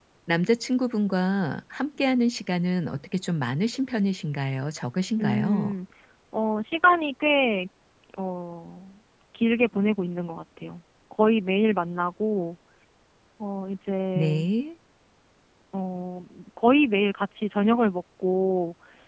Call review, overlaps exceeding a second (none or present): none